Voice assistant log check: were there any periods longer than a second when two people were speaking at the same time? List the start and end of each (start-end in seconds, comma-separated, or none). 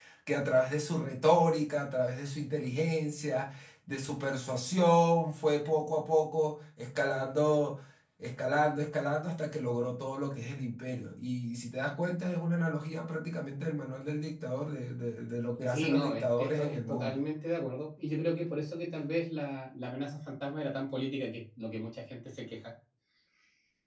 15.7-17.2